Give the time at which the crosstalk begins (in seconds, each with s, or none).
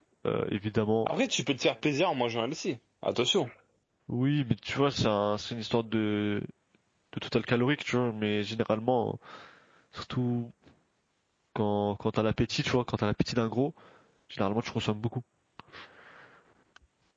none